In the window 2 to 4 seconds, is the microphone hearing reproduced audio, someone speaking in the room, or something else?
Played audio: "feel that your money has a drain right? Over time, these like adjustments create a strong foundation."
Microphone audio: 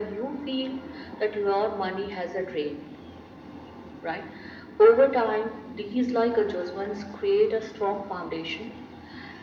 echo only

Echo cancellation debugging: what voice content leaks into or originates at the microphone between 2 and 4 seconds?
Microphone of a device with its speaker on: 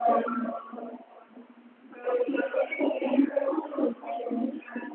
echo only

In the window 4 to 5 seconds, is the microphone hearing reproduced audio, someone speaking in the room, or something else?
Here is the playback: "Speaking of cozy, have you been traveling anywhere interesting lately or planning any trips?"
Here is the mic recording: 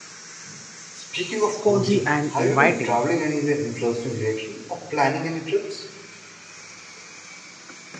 echo only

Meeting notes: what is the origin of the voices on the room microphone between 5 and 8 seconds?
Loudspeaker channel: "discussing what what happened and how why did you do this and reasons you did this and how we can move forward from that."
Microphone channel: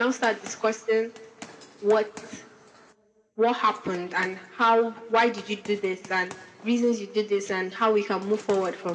echo only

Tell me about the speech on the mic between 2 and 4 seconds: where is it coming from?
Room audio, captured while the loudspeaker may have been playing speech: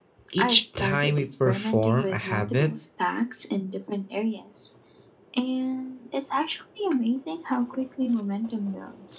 both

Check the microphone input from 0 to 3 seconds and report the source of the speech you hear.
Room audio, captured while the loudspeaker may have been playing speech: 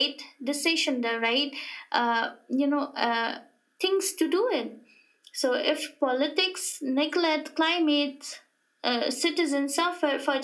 echo only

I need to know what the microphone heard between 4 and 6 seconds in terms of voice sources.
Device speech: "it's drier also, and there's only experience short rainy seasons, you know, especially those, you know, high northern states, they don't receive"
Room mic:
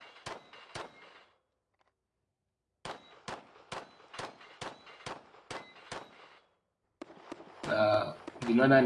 neither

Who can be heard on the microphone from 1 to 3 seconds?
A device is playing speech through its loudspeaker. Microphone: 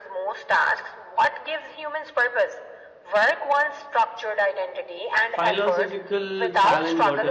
echo only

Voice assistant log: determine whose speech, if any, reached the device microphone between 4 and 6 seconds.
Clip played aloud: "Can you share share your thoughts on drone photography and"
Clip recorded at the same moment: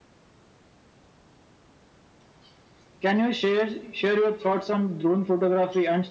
echo only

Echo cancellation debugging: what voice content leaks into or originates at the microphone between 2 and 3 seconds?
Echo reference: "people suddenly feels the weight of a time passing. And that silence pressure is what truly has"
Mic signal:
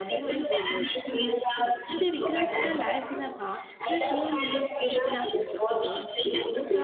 both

